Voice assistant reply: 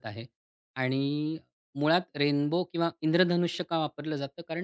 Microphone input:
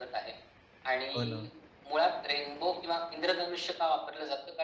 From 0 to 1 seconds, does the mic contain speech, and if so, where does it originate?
echo only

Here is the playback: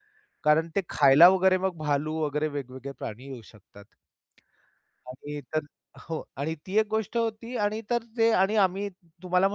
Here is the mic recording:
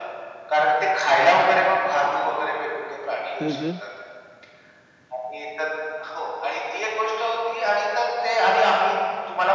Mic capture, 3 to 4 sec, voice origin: both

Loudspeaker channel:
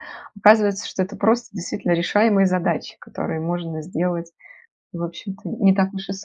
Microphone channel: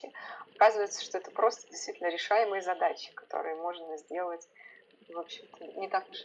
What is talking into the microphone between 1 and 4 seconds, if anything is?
echo only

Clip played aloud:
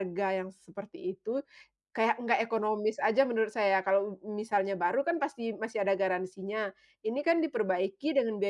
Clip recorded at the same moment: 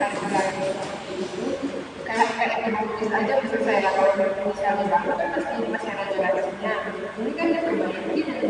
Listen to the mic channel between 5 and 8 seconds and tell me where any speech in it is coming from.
echo only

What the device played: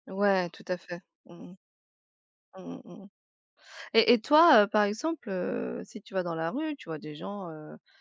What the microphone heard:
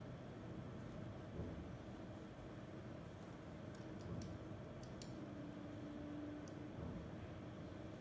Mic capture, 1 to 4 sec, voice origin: neither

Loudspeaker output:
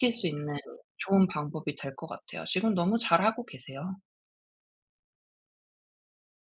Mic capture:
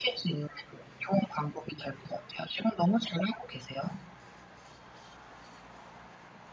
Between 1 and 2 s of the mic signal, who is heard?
echo only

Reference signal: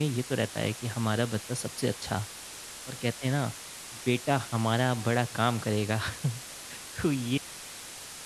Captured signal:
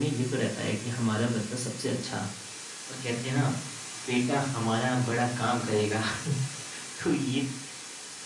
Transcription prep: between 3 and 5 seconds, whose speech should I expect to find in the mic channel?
echo only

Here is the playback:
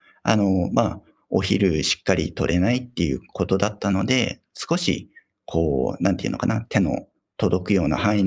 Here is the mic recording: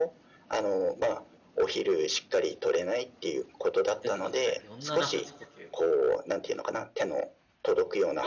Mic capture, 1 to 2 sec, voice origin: echo only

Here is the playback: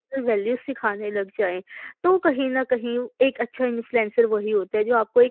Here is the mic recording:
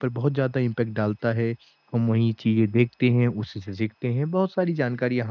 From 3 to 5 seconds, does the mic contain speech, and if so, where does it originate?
user only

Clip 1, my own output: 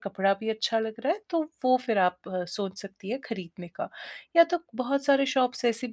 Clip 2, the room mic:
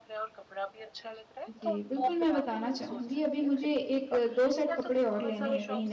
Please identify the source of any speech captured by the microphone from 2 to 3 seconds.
both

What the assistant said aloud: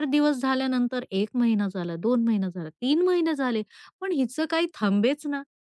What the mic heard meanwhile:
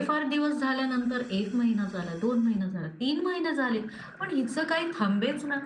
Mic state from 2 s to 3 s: echo only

